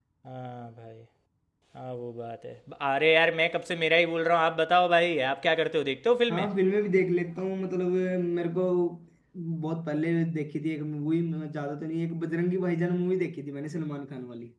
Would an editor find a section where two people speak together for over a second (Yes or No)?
No